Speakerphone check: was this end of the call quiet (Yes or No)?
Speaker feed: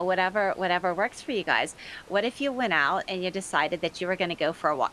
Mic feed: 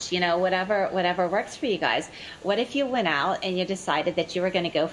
Yes